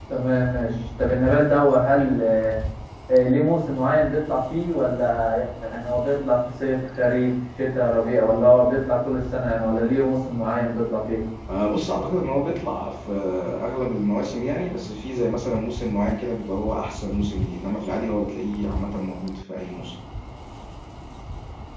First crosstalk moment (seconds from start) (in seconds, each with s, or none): none